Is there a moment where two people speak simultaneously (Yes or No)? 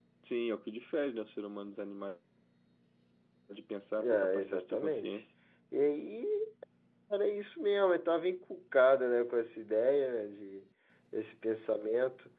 Yes